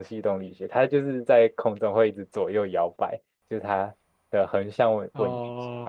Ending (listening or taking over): taking over